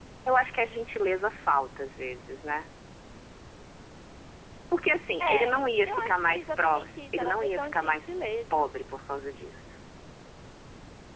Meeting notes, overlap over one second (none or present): present